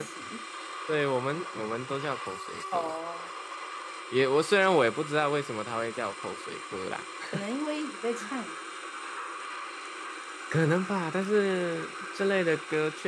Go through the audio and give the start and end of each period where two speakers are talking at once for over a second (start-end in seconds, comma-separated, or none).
none